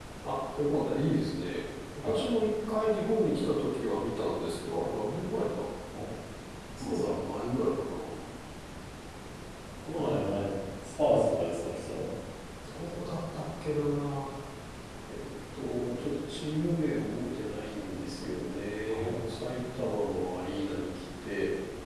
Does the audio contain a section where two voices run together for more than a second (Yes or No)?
No